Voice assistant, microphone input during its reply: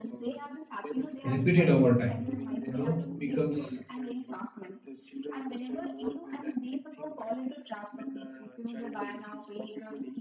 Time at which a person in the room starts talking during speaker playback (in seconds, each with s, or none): 1.2 s